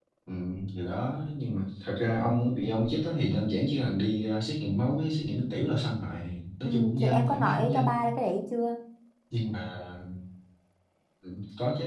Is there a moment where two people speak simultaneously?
Yes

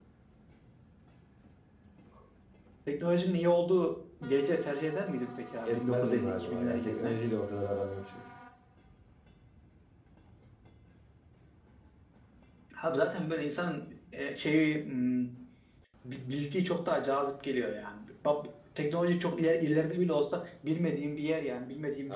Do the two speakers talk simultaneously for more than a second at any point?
Yes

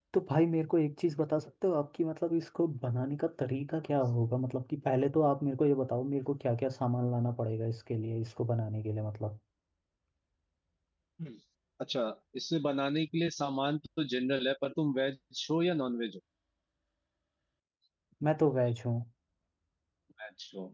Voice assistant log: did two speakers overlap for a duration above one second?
No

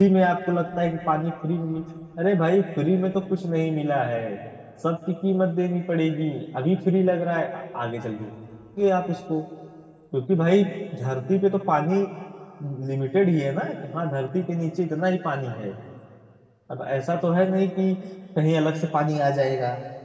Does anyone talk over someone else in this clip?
No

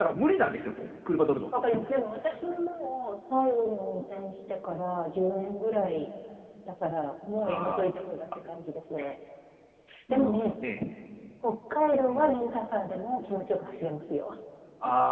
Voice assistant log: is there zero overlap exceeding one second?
Yes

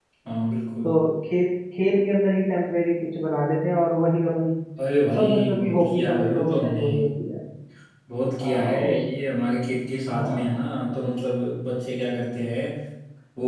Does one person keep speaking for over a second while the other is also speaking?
Yes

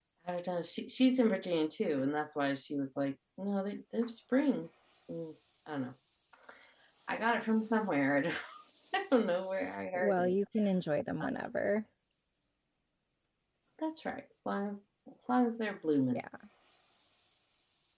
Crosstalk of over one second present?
No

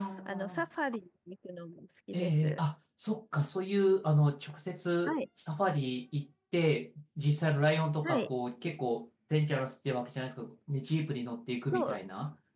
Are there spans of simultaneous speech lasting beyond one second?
No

